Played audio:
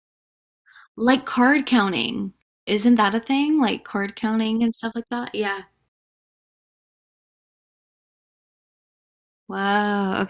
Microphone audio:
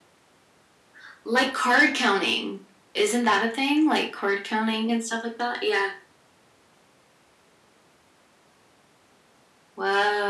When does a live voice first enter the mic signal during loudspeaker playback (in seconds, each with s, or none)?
none